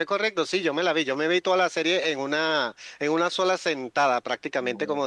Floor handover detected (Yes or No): No